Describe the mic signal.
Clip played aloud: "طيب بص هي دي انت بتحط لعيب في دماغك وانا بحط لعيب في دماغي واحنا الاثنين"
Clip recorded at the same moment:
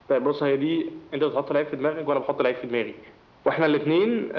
echo only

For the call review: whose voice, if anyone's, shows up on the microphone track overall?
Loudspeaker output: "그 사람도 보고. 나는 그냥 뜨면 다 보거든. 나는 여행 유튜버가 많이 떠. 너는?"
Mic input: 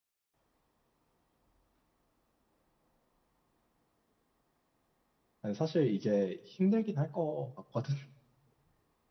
user only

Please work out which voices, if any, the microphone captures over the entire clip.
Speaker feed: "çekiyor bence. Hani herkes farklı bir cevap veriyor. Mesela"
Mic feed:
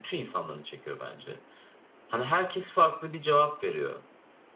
echo only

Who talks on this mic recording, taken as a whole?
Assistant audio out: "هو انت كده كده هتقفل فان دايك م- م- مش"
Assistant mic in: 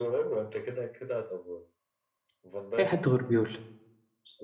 both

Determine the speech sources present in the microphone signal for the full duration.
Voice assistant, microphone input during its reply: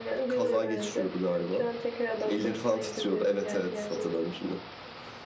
echo only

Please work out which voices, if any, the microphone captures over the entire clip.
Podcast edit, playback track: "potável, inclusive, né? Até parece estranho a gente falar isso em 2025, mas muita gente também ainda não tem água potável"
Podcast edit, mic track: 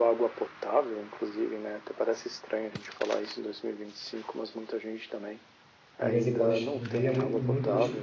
both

